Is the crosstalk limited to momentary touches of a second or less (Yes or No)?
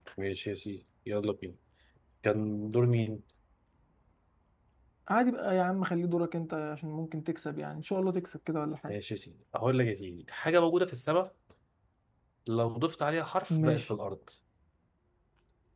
Yes